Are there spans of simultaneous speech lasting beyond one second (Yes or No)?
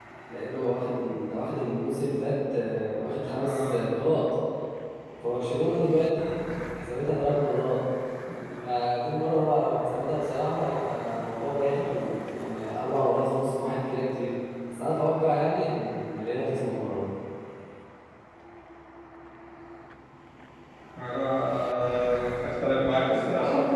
No